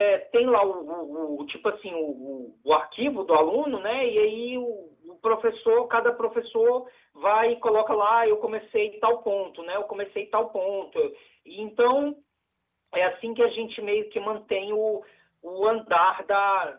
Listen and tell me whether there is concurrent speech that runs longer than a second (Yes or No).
No